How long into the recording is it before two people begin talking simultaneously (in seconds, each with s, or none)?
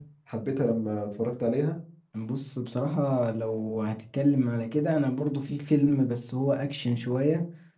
none